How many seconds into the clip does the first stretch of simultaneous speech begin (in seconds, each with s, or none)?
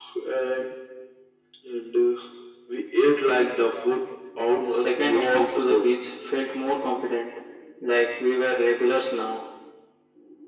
4.6 s